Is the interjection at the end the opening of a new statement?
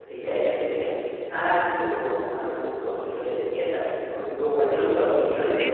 Yes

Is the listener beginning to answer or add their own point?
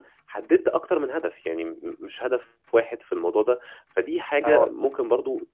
No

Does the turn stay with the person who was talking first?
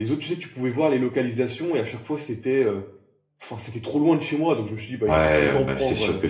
No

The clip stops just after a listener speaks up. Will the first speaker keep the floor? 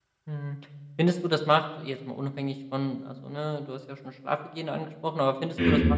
Yes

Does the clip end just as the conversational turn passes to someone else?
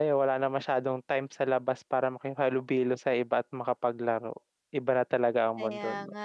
Yes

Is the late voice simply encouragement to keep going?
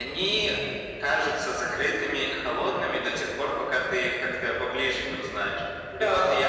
Yes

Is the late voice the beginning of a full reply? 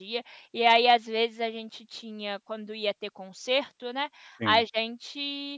No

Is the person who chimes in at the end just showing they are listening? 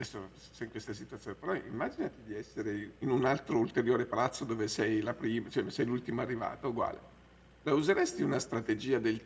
Yes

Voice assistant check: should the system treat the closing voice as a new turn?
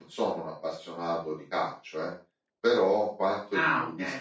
No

